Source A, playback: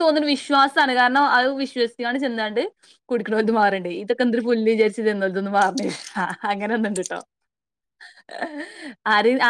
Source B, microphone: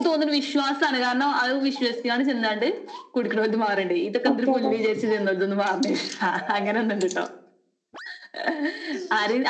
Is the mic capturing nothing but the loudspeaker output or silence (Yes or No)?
No